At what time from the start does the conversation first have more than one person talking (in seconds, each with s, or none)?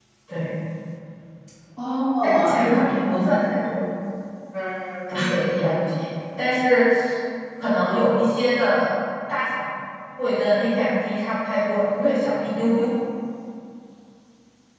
2.2 s